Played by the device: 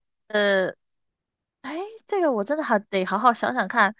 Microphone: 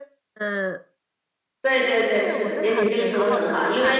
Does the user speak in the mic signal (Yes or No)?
Yes